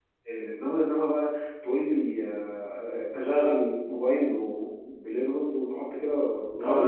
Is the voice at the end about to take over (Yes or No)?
Yes